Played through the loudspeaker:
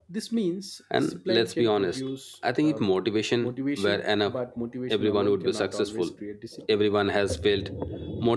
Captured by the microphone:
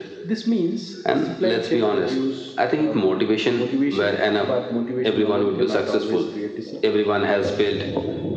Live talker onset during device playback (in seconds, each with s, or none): none